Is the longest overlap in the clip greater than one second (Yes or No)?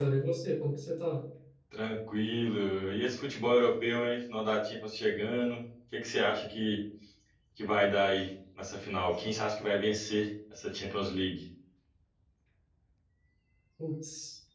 No